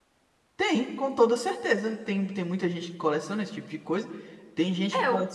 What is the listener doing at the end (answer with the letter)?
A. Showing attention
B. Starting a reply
A